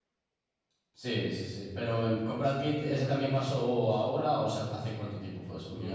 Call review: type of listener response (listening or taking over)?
taking over